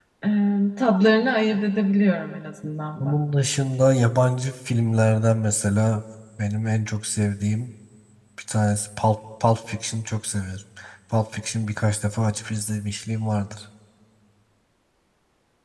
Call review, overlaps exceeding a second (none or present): none